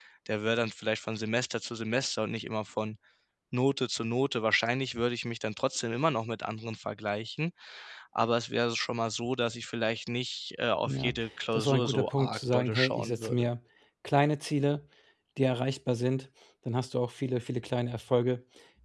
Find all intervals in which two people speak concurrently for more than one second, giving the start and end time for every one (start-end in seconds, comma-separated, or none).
11.5-13.5